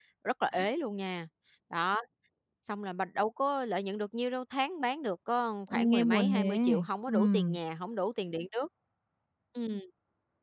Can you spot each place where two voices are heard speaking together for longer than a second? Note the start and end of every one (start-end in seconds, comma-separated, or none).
5.7-7.6